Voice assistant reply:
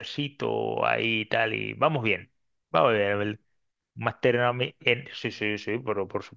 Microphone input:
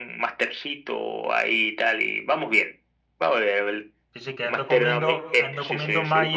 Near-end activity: present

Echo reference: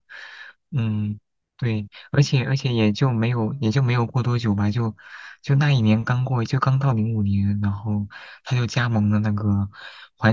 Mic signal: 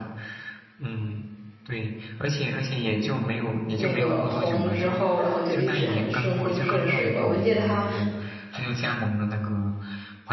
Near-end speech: present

